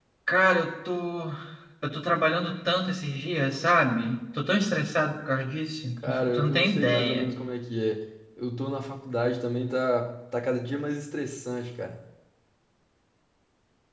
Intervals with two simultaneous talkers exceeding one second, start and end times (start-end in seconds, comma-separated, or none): 6.0-7.3